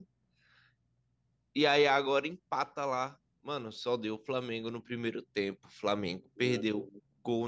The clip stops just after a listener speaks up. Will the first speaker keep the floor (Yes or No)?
Yes